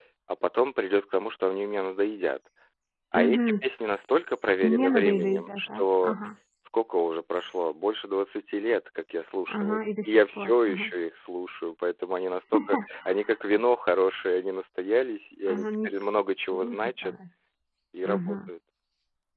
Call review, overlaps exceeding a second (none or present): present